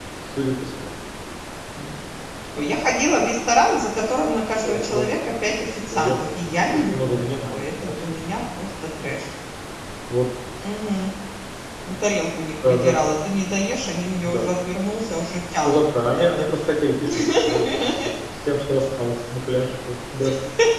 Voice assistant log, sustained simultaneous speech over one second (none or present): present